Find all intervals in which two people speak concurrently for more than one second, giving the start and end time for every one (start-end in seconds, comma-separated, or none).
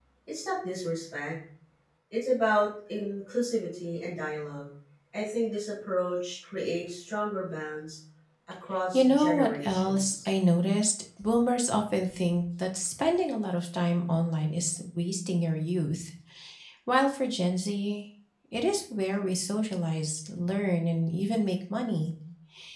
8.9-10.2